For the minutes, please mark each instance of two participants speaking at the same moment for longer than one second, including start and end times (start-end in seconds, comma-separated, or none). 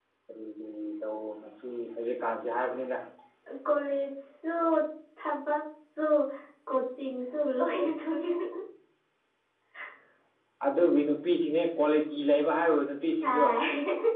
none